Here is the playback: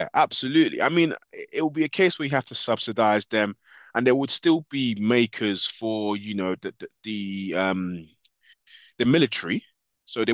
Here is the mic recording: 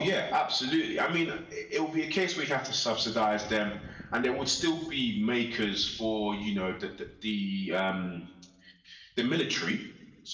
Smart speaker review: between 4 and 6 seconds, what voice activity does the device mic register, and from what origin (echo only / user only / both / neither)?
echo only